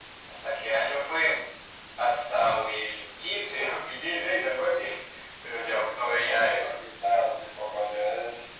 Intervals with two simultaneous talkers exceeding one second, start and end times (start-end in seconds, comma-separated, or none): 5.5-6.7